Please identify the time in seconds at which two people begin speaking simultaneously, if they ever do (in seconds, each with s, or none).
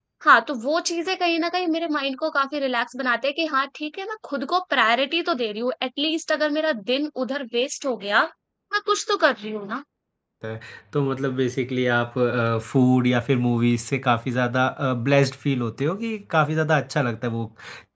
none